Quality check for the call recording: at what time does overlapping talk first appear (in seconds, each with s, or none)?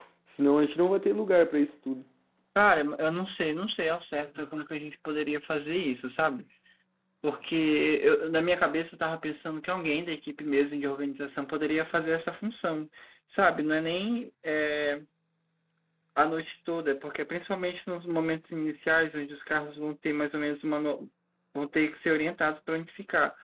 none